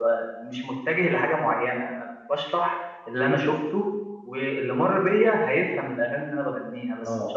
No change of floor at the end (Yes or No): No